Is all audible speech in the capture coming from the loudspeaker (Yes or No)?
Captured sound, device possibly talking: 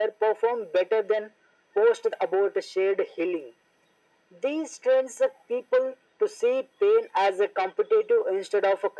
Yes